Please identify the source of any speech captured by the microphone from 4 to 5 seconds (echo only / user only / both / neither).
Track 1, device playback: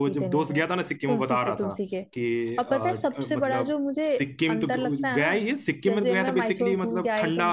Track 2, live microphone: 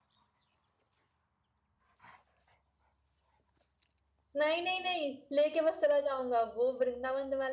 user only